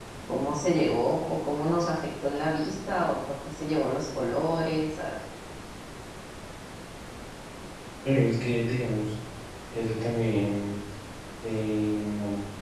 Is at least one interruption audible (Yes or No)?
No